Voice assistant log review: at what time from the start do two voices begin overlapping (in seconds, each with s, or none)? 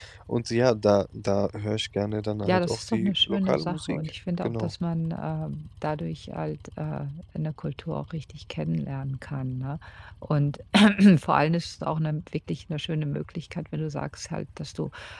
2.4 s